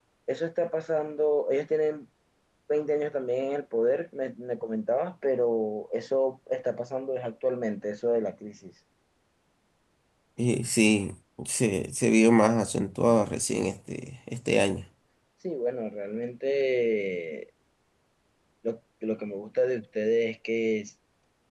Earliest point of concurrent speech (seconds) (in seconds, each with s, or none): none